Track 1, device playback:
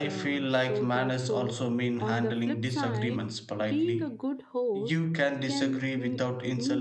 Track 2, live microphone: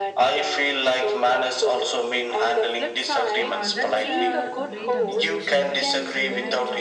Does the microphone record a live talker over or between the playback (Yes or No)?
Yes